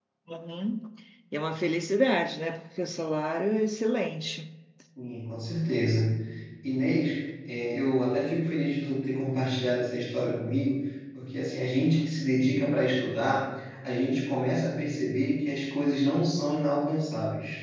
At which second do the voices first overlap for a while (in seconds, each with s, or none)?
none